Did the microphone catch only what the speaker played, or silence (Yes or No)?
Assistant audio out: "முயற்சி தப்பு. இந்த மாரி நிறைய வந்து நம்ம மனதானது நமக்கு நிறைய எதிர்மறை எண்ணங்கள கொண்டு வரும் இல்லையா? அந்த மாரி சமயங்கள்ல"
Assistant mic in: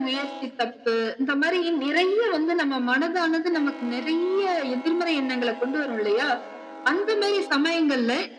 Yes